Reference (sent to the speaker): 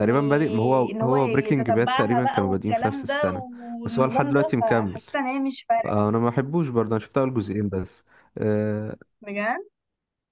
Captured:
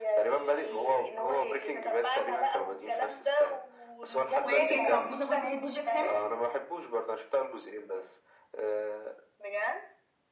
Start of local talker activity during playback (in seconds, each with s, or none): 4.4 s